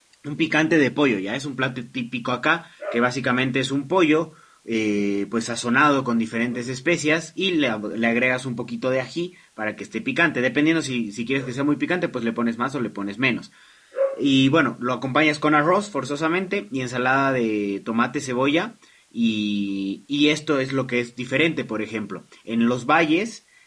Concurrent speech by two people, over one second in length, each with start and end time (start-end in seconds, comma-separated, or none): none